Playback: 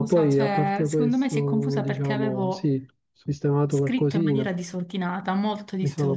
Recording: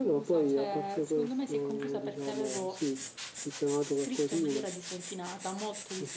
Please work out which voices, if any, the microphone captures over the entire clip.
echo only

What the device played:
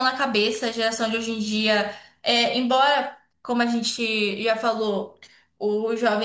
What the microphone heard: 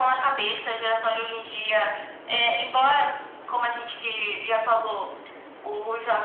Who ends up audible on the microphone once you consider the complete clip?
echo only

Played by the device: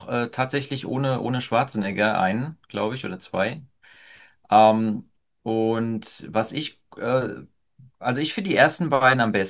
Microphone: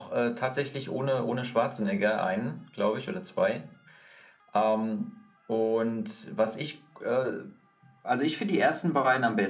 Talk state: echo only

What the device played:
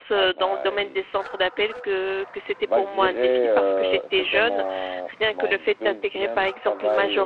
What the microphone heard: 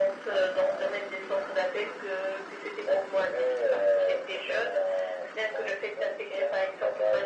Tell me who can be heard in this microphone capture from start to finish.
echo only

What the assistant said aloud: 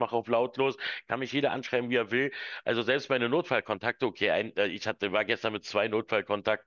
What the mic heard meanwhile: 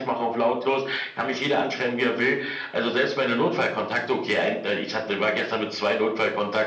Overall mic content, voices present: echo only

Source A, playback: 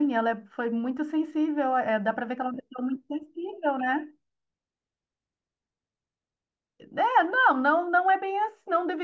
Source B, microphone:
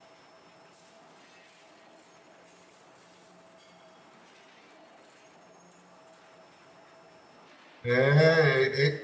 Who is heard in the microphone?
user only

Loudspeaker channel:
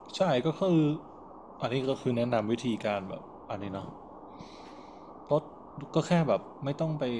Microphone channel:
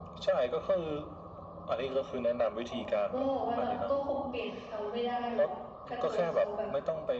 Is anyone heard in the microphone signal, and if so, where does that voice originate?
both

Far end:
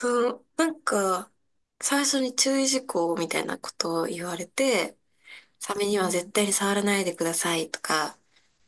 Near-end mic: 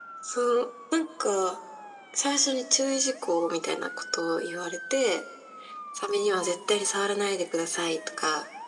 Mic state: echo only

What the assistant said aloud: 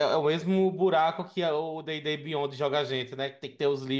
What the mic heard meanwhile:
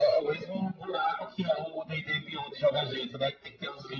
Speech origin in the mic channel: echo only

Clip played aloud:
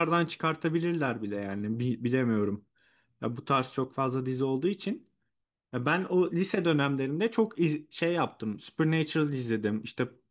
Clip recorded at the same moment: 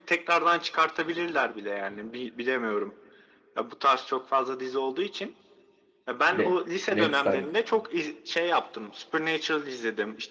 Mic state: both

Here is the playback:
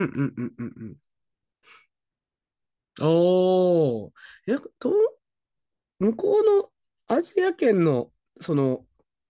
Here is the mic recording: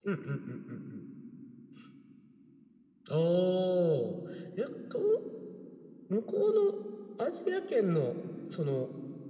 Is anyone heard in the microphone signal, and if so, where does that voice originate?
echo only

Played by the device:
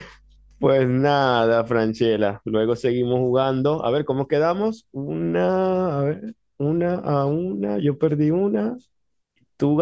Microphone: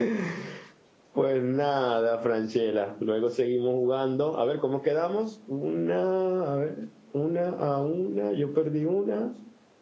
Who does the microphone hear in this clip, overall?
echo only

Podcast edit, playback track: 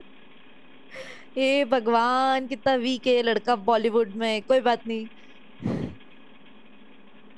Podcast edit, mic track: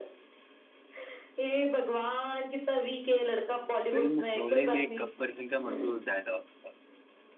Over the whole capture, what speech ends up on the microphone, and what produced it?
both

